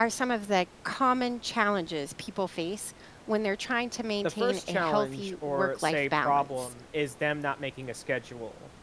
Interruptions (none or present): present